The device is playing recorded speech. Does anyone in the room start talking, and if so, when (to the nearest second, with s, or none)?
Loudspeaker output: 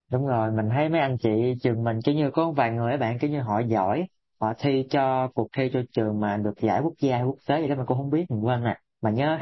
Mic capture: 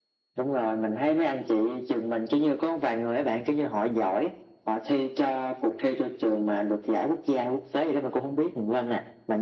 none